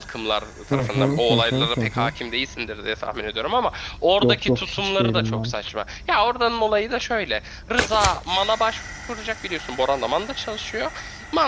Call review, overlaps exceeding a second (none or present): present